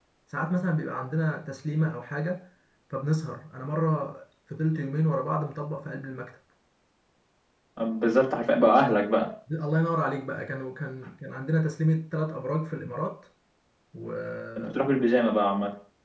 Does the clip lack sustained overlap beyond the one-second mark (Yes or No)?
Yes